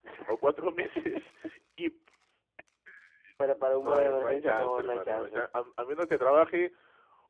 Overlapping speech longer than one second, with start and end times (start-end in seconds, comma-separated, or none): 3.8-5.4